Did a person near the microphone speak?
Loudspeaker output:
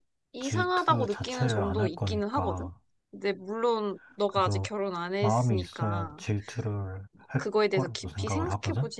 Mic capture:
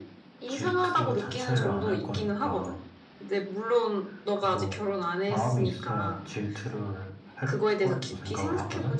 No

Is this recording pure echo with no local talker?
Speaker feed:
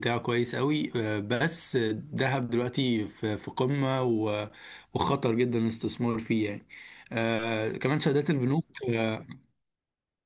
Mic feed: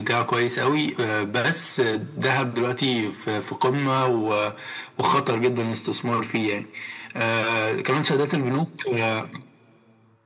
Yes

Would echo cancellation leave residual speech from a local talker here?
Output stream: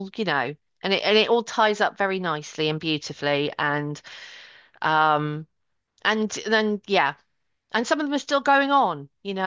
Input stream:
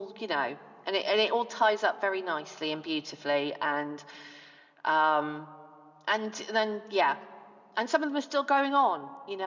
No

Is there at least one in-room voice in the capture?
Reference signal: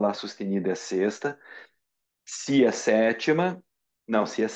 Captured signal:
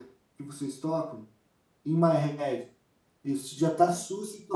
Yes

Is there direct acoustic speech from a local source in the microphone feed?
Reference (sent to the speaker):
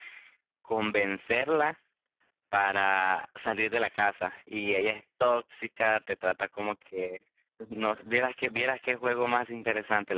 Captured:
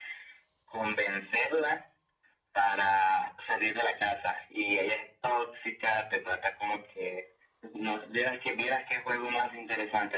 No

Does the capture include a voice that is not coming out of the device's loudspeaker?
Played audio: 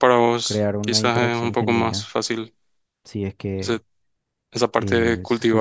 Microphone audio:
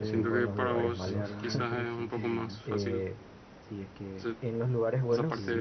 Yes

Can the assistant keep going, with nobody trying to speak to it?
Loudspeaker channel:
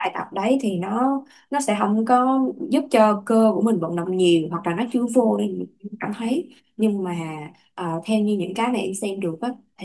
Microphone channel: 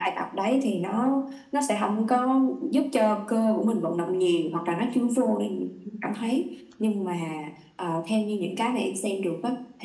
Yes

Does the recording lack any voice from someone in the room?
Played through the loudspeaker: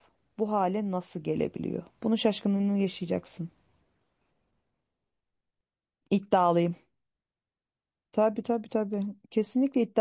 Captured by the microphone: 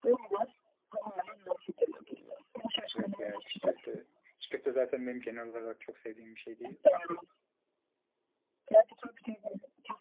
No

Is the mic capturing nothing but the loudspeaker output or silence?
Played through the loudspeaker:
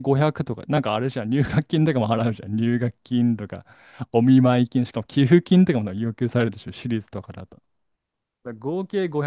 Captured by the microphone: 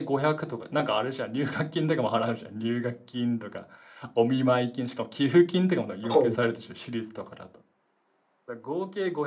No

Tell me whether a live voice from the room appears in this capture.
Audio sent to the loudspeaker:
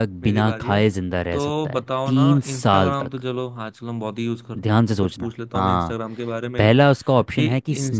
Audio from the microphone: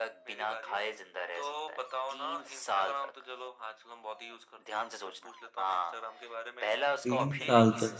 Yes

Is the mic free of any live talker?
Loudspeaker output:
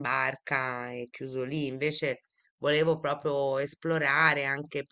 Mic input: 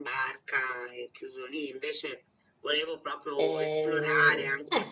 No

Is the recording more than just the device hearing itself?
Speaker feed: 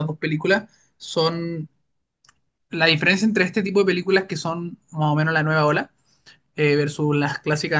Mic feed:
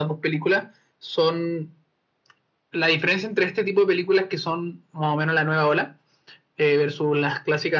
No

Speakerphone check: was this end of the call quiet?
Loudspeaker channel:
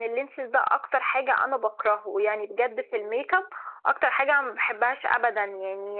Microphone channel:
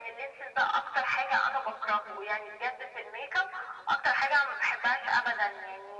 Yes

